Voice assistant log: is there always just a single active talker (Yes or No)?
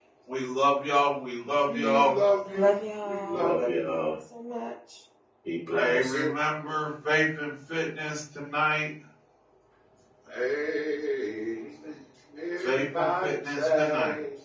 No